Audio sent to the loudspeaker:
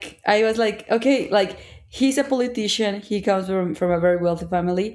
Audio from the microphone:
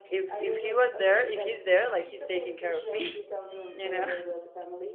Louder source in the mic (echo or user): user